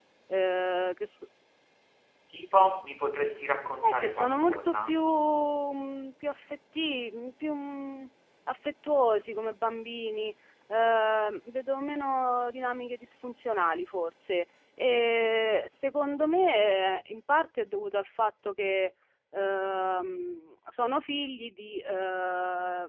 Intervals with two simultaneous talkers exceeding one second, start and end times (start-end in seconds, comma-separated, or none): 3.8-5.1